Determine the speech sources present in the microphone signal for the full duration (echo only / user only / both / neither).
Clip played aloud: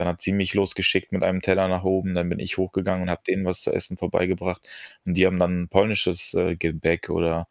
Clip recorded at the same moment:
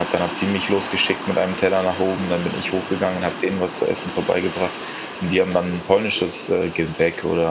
echo only